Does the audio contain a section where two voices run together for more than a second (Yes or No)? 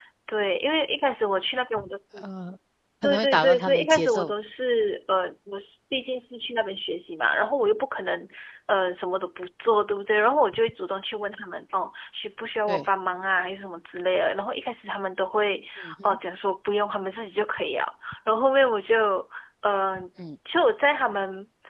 Yes